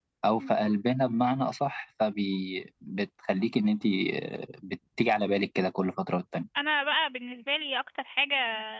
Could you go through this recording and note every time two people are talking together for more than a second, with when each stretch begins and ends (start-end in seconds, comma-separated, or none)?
none